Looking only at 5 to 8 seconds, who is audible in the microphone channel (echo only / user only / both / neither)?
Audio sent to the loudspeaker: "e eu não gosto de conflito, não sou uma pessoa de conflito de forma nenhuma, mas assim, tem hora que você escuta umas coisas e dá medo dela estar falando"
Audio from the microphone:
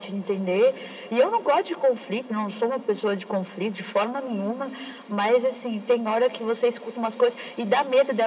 echo only